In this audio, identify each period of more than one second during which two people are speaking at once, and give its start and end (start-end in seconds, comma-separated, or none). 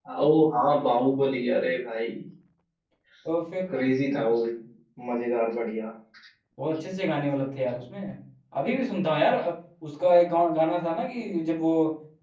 none